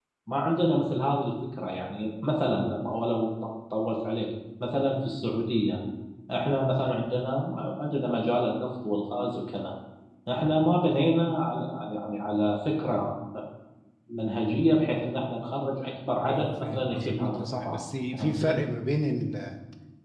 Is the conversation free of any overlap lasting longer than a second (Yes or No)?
No